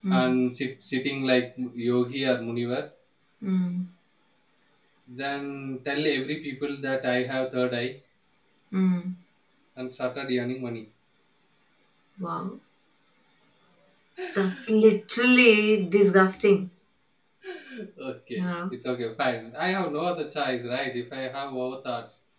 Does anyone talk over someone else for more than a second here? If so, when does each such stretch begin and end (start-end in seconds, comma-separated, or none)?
none